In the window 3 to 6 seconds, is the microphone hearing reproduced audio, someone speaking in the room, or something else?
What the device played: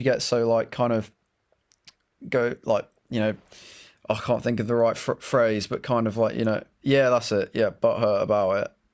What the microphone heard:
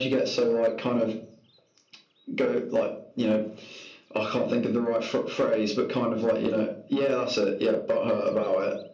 echo only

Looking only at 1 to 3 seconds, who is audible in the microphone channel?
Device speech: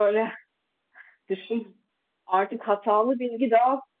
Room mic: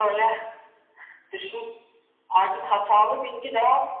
echo only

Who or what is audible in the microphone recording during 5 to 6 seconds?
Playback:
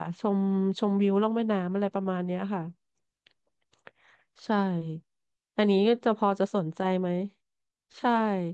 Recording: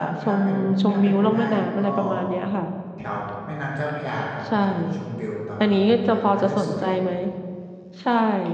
both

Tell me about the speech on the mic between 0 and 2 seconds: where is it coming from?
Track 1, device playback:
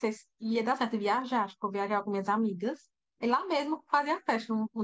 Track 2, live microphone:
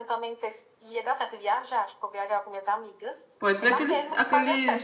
echo only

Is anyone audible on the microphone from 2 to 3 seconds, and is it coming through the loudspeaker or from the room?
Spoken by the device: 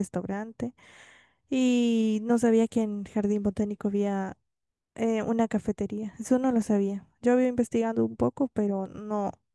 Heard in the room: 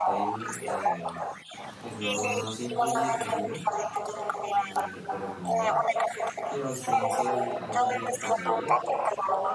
both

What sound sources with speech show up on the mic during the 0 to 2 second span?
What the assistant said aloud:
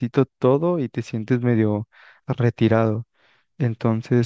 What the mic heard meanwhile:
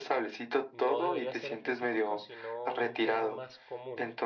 both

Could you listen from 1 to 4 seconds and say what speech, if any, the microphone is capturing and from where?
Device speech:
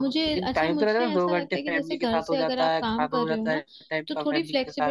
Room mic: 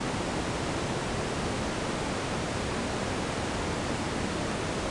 neither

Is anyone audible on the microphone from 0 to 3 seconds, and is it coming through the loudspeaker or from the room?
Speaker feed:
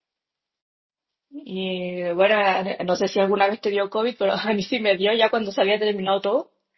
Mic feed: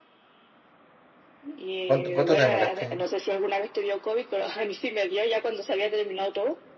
both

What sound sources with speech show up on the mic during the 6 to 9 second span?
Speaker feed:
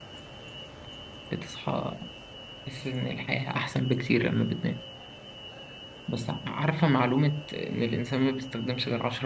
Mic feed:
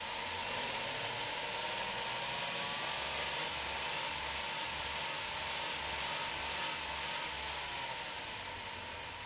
neither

